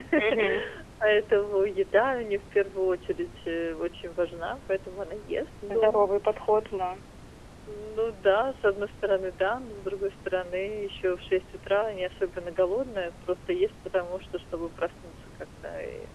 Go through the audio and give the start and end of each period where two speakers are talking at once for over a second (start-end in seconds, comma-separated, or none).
none